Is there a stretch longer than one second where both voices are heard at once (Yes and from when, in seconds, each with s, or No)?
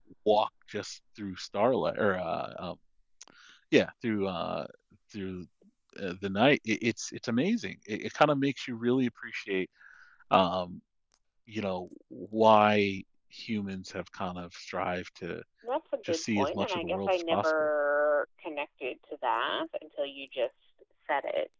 Yes, from 16.1 s